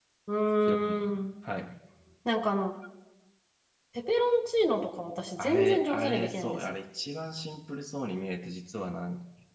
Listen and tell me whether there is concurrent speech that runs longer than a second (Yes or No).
Yes